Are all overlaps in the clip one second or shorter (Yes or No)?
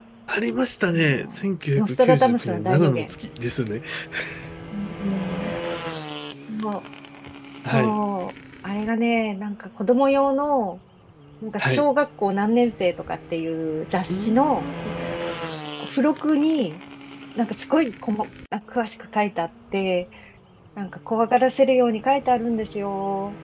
No